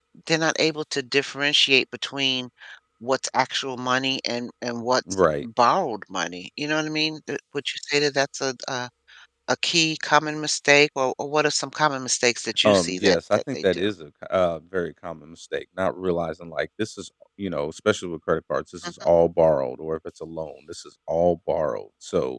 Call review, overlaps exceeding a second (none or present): present